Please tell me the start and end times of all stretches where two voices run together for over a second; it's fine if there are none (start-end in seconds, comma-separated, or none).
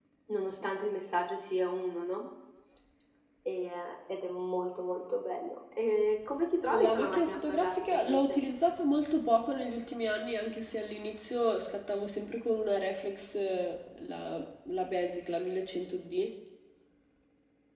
6.8-8.4